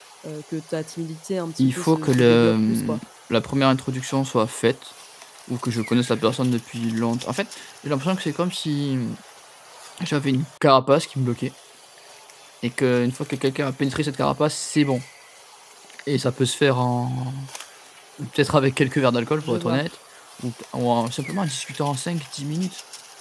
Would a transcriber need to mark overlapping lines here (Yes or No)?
Yes